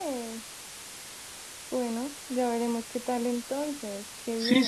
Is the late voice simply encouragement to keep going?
No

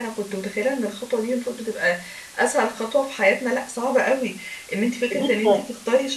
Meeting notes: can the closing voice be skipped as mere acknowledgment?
Yes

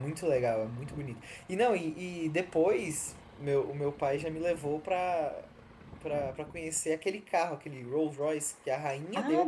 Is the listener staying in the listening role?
No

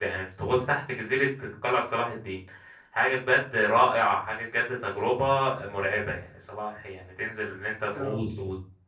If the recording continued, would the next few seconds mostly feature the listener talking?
No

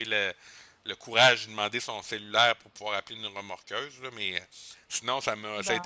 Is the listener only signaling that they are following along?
Yes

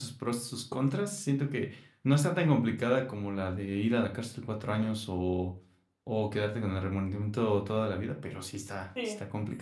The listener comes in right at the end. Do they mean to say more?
Yes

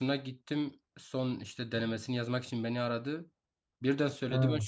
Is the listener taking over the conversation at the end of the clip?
No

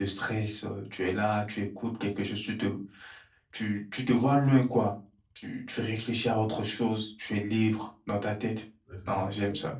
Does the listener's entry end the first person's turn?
Yes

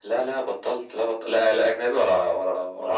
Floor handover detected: No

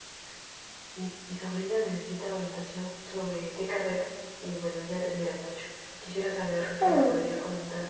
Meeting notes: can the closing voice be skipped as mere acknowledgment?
Yes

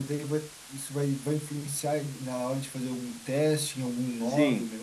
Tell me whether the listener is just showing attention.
No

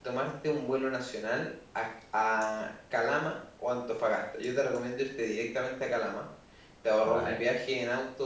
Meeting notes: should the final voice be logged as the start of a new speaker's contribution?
No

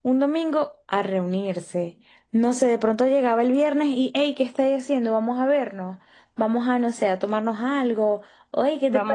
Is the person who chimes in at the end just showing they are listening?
No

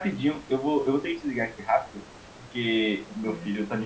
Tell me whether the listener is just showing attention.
Yes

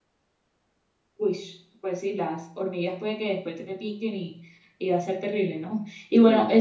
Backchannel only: Yes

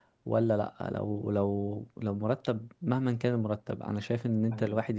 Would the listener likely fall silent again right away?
Yes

